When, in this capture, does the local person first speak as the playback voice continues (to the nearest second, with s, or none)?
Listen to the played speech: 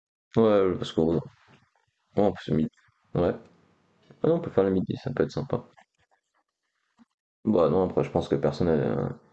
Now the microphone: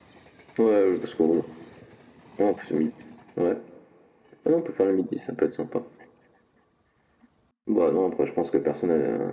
none